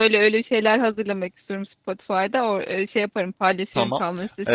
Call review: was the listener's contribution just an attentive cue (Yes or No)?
No